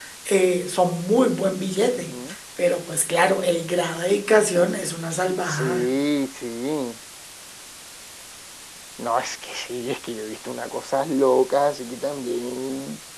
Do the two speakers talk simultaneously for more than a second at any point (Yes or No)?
No